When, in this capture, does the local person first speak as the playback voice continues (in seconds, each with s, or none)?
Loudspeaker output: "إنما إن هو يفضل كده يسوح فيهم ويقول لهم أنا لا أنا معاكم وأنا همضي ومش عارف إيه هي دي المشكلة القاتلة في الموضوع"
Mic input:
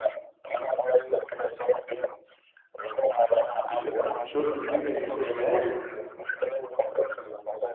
3.7 s